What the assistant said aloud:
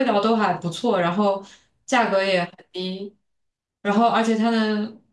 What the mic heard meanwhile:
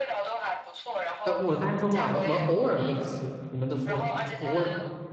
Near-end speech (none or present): present